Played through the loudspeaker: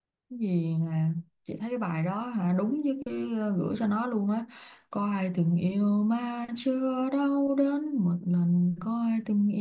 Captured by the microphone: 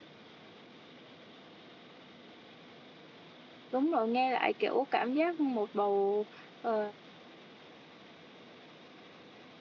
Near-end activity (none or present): present